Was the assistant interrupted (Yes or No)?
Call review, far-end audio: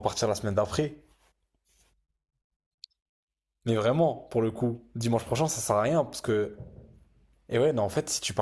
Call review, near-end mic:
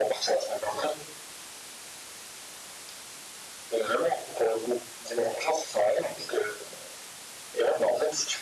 No